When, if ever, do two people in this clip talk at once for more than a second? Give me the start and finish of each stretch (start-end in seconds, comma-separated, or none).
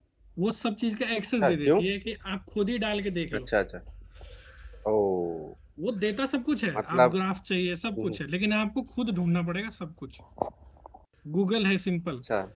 none